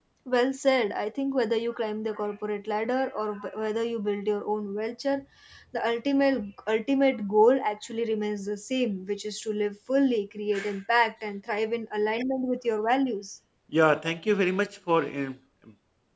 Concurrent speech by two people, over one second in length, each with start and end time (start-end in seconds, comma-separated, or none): none